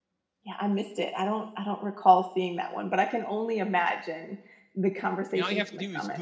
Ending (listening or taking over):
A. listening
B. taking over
B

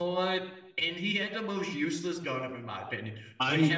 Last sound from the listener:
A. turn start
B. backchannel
B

